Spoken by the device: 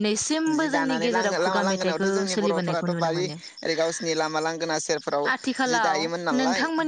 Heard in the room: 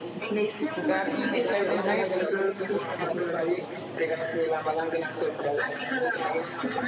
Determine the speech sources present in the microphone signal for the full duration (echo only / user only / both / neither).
both